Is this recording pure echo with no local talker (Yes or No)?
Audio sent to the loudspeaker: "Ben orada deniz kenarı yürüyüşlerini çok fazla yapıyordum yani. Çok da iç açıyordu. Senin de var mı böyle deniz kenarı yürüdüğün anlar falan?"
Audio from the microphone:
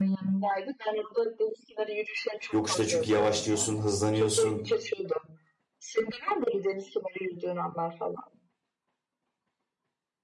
No